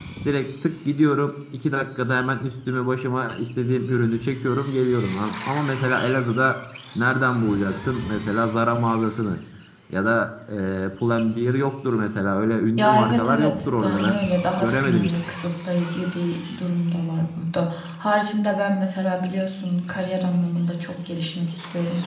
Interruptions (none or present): present